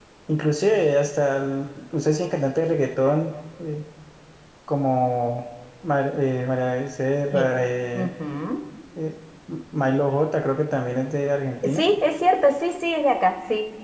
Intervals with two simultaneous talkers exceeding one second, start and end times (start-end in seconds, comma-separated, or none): none